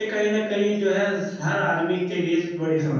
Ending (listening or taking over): taking over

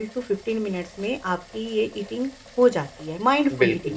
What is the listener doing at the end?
taking over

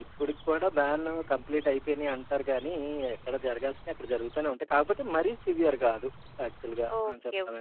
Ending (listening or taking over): taking over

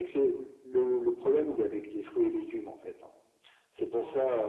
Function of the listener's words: listening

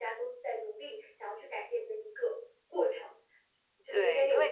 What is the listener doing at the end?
taking over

